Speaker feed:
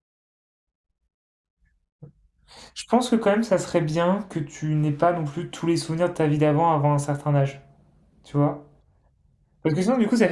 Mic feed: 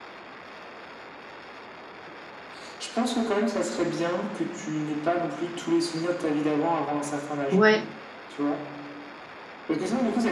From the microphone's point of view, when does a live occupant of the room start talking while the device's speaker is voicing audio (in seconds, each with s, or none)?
7.5 s